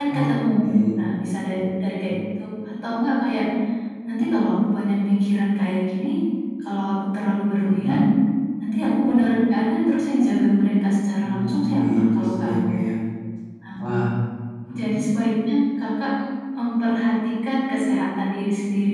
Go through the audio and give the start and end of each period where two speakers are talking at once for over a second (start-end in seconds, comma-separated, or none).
11.2-12.7